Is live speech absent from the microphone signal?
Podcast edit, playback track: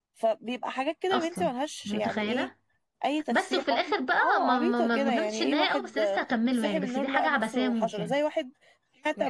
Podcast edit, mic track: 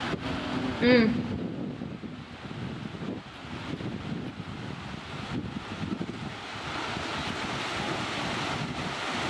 No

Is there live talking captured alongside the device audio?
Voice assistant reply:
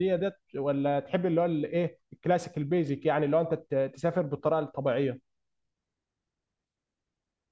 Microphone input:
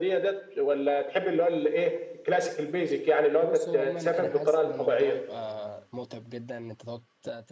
Yes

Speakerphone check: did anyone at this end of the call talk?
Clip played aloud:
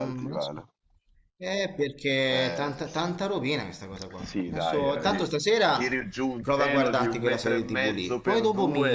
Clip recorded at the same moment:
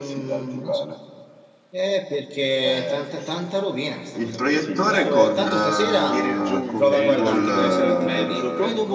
Yes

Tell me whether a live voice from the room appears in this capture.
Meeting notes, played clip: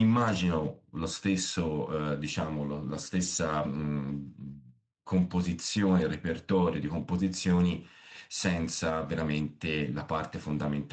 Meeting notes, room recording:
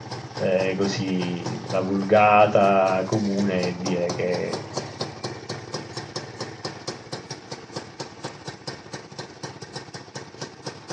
Yes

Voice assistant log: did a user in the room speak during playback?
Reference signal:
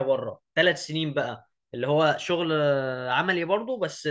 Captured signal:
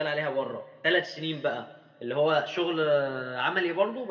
No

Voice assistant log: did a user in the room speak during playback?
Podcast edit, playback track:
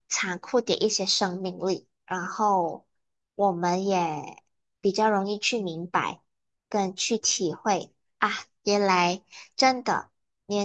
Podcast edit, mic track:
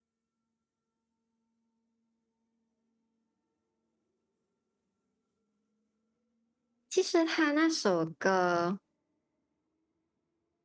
Yes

